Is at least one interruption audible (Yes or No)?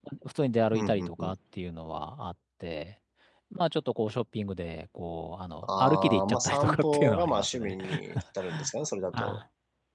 Yes